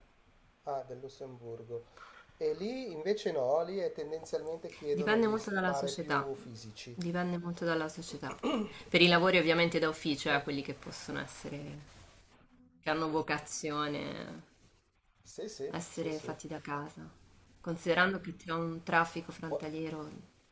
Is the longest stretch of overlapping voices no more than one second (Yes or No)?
No